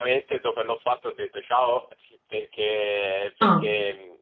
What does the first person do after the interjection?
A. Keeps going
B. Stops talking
A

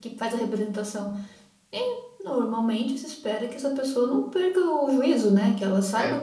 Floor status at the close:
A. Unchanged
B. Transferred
A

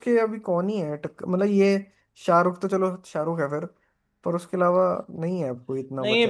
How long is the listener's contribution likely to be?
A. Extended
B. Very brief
A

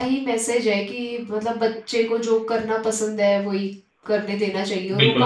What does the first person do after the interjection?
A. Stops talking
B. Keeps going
A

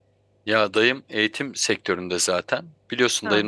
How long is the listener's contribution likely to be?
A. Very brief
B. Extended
A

